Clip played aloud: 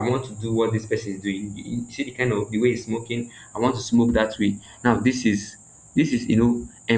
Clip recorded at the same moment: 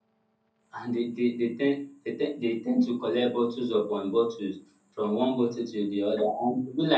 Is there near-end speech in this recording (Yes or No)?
Yes